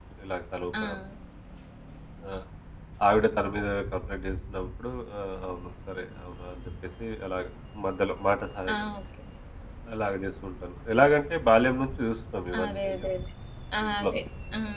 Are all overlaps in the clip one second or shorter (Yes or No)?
Yes